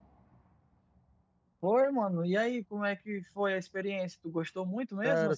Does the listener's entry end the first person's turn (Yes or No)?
Yes